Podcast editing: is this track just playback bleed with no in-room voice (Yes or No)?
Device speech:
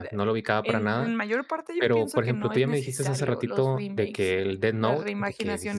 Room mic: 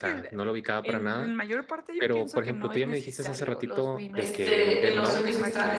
No